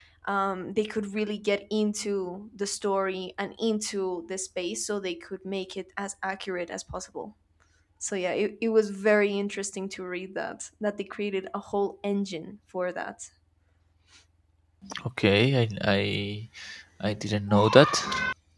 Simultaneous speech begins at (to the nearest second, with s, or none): none